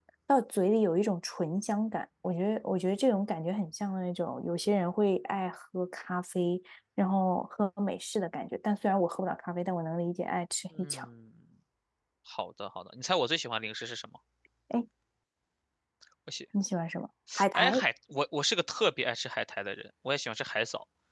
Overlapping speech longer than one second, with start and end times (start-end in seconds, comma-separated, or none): none